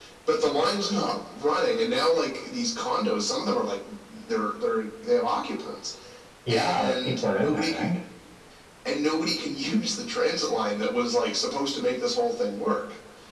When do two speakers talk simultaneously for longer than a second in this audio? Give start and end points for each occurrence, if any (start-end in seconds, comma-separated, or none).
6.5-7.9